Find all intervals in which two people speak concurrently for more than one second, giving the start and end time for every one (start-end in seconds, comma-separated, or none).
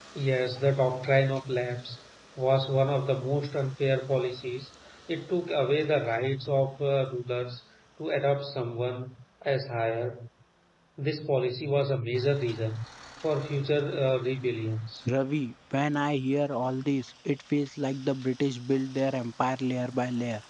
none